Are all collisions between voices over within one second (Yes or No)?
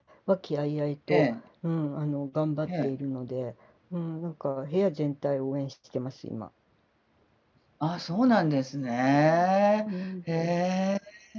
Yes